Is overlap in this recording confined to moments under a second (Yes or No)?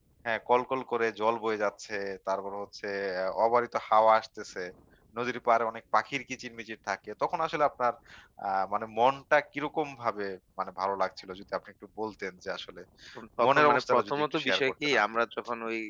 No